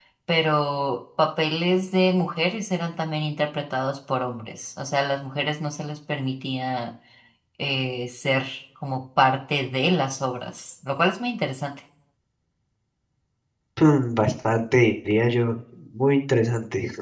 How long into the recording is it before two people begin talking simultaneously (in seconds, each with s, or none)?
none